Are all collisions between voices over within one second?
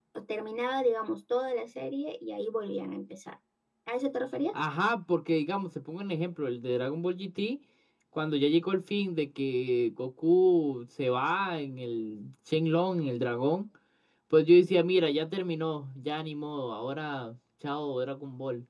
Yes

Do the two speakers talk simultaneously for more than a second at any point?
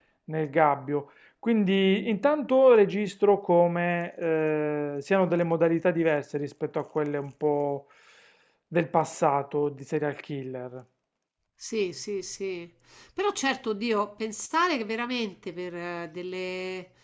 No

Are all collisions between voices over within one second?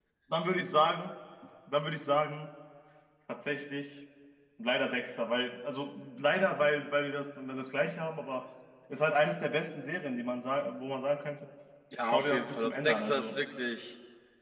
No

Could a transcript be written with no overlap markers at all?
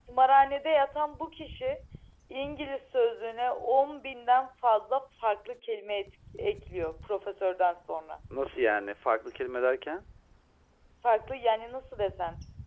Yes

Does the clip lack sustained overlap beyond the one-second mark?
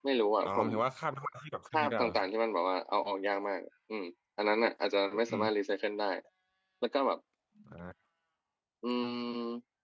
Yes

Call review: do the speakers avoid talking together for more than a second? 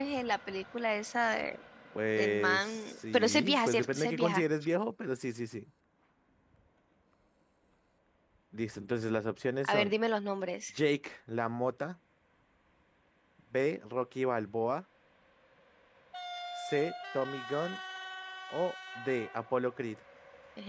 No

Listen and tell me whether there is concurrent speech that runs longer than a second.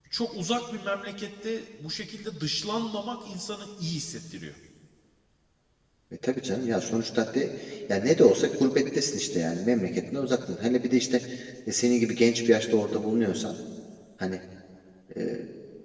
No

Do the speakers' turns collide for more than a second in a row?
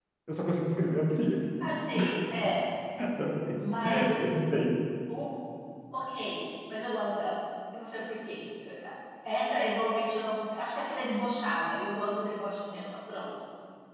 No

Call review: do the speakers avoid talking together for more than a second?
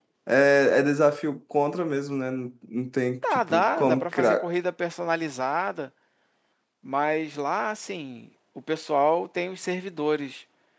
No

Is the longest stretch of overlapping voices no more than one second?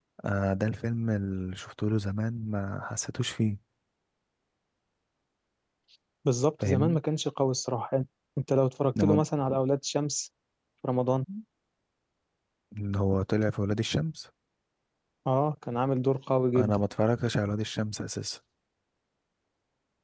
Yes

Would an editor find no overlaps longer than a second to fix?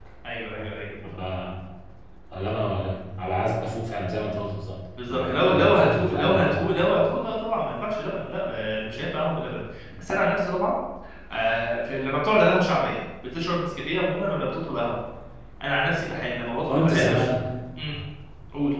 No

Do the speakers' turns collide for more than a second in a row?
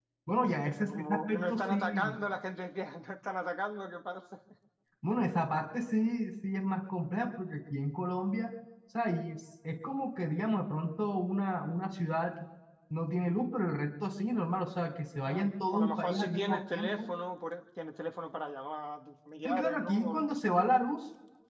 Yes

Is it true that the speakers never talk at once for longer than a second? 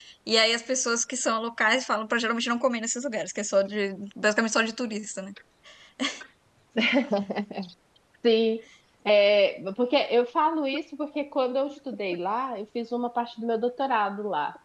Yes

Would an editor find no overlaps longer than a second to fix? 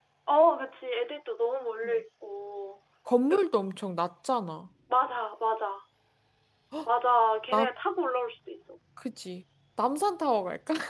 Yes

